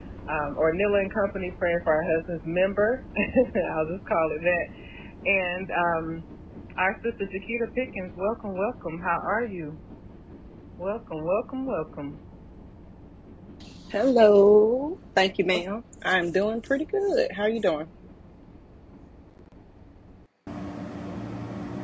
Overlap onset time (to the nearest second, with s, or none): none